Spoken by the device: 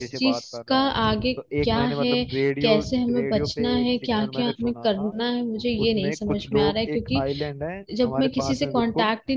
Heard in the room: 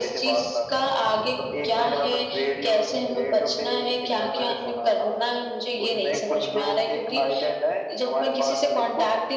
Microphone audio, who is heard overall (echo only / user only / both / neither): both